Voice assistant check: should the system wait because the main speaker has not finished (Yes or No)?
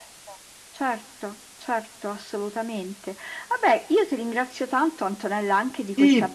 No